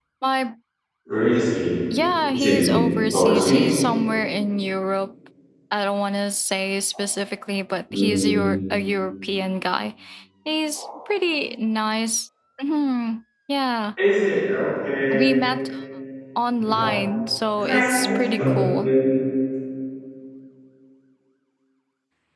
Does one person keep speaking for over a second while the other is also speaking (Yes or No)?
Yes